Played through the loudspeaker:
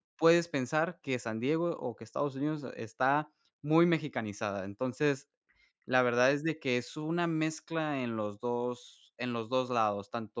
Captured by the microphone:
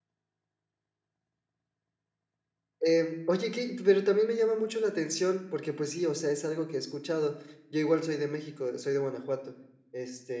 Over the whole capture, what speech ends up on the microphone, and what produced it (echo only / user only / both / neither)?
user only